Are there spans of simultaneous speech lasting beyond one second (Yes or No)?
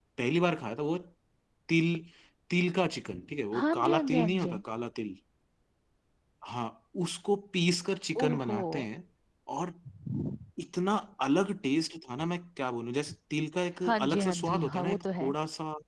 Yes